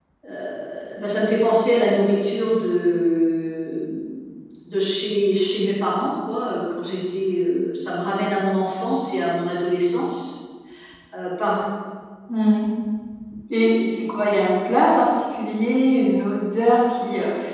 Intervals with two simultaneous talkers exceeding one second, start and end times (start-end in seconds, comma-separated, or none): none